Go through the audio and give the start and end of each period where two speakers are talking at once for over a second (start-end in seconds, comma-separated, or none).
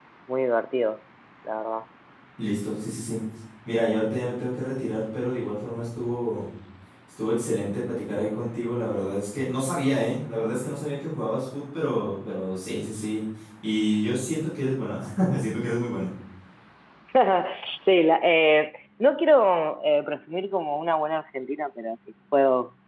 none